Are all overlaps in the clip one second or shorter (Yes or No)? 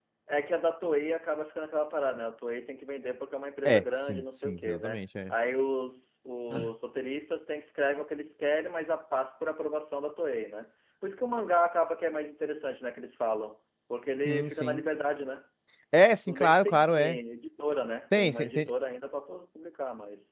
No